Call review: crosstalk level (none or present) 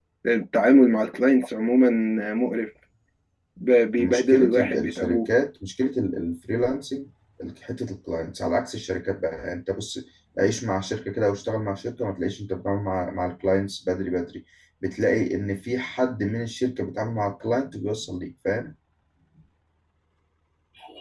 present